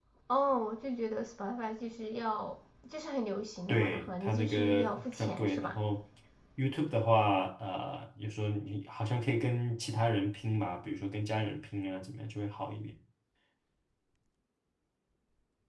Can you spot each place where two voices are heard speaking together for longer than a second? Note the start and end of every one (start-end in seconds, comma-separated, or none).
3.7-5.8